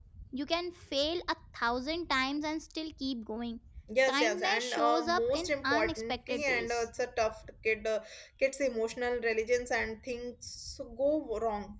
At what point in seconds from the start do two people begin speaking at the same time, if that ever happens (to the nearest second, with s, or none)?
4 s